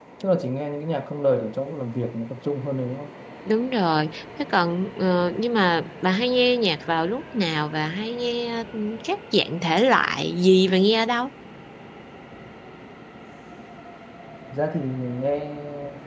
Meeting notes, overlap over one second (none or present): none